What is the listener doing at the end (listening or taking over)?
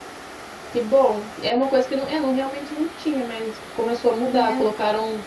listening